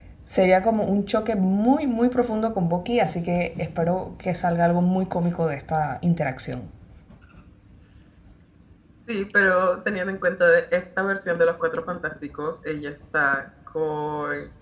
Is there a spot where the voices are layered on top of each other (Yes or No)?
No